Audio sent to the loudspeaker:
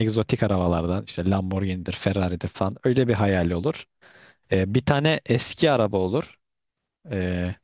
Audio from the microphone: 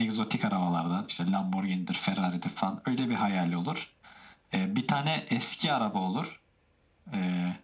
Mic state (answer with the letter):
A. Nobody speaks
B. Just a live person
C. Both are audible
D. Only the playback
D